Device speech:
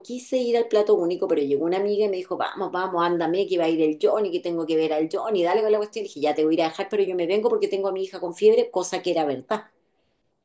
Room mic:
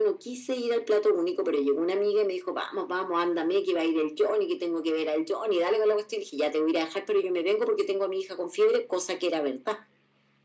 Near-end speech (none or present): none